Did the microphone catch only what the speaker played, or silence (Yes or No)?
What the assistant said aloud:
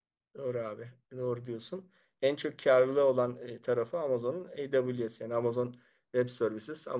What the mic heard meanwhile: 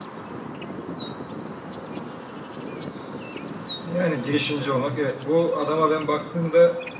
No